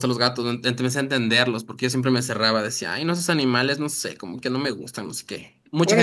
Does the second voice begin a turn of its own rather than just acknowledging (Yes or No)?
Yes